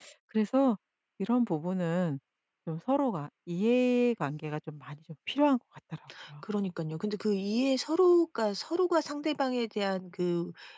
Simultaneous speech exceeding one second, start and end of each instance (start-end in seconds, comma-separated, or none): none